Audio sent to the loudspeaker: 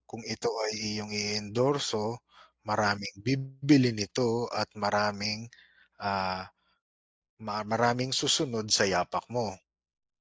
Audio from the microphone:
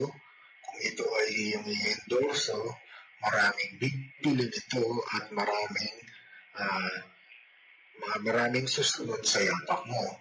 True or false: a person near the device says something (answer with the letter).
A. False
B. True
A